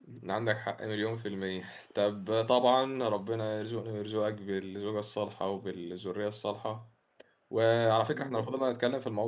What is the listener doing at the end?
listening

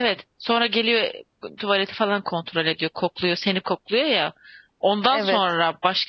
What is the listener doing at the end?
listening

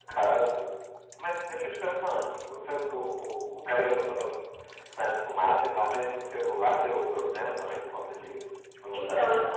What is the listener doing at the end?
taking over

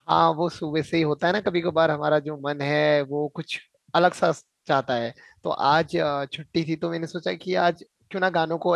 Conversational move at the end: listening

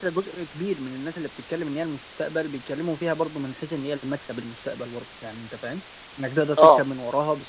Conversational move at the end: listening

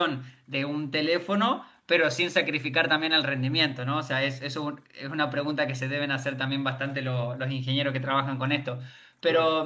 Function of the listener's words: listening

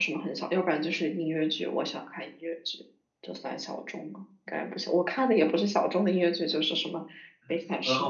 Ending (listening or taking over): taking over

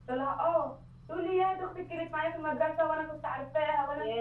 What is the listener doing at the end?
listening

